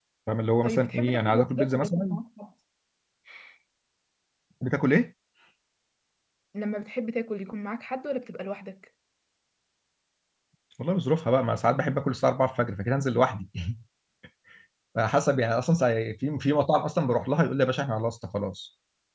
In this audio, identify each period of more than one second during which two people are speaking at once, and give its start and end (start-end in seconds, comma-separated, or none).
0.6-2.2